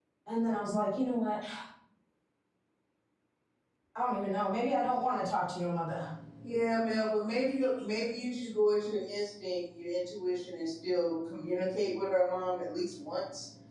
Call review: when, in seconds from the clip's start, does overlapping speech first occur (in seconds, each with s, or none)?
none